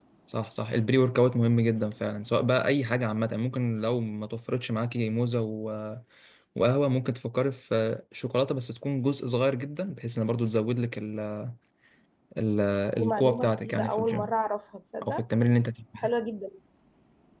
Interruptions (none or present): present